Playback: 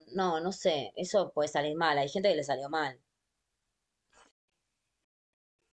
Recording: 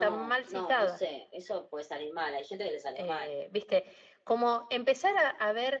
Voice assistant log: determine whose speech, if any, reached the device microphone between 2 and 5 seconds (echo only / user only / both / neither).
both